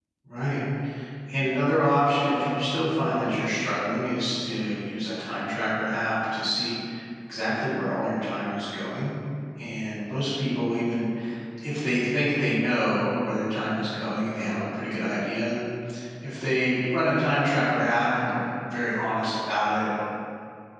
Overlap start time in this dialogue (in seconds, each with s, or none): none